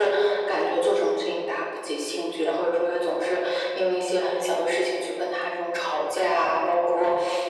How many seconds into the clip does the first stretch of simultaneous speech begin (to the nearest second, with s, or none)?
none